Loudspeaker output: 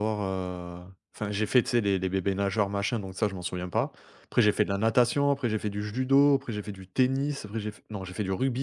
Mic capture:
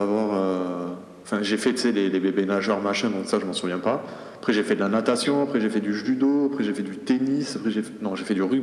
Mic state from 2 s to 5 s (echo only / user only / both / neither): echo only